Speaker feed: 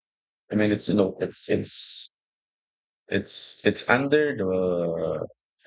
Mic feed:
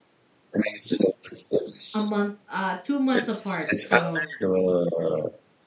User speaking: Yes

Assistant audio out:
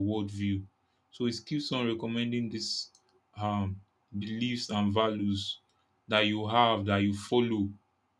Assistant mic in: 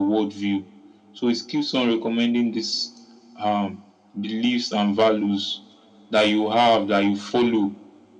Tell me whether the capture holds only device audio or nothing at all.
Yes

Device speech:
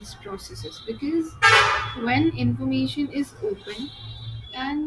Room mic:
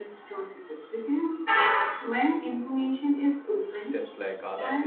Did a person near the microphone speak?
Yes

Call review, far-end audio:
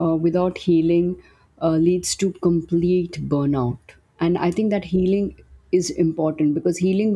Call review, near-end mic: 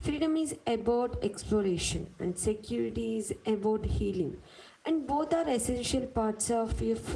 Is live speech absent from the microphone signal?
No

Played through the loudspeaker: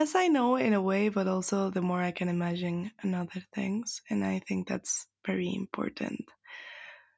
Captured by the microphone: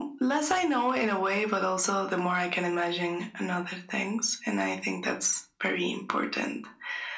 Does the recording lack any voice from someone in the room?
Yes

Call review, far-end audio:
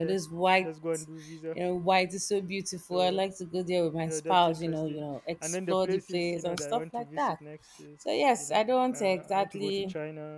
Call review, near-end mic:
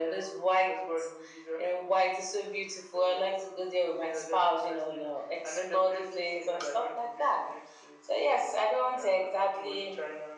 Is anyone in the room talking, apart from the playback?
No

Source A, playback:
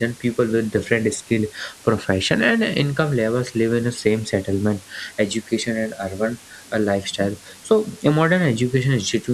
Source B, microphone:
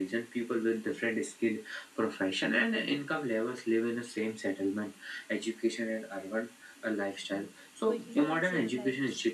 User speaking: Yes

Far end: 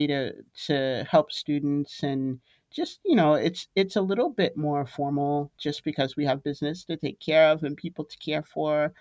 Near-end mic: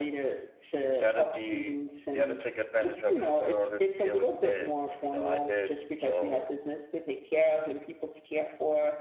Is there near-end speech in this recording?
Yes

